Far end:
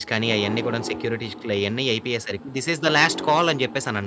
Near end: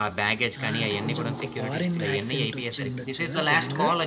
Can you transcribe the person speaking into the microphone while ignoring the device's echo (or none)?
ఆ! అంటే కొంచెం, ఒక ఫారెన్ యాక్సెంట్ వచ్చి ఉండొచ్చు కదా! స్లాంగ్.